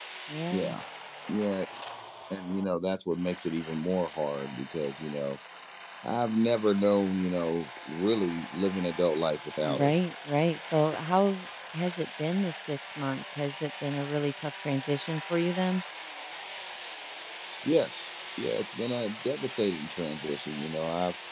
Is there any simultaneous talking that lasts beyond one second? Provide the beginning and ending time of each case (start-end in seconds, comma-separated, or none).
none